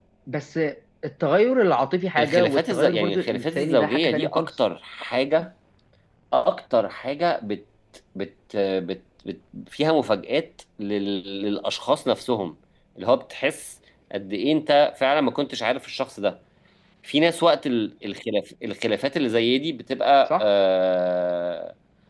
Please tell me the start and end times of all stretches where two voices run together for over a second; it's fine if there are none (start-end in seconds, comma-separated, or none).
2.2-4.5